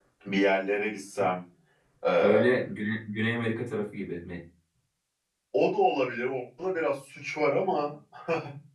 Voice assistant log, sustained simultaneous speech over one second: none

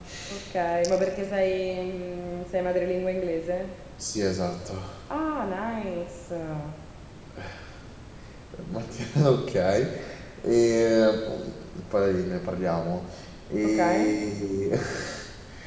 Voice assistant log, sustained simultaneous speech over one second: none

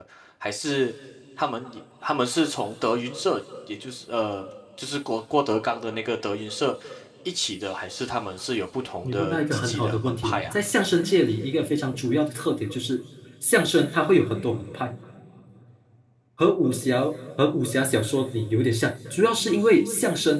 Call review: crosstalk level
present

